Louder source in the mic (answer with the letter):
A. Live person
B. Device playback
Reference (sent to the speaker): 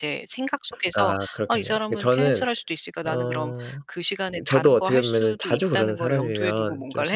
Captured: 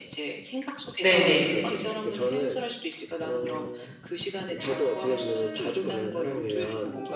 A